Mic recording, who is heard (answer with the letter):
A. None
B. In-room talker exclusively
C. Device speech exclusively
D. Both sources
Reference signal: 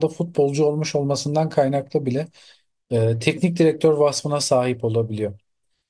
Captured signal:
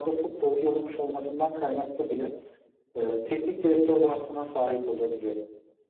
C